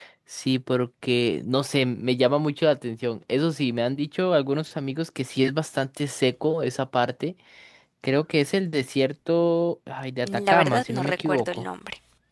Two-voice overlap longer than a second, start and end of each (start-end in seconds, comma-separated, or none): 10.2-11.7